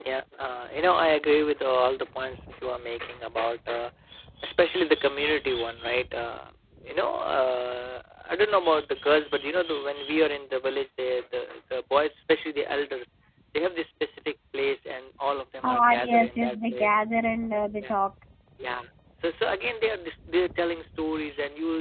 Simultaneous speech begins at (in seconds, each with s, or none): 15.6 s